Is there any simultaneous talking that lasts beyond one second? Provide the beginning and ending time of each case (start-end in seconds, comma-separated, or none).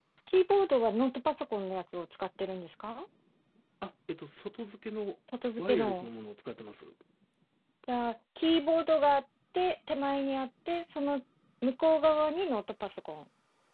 none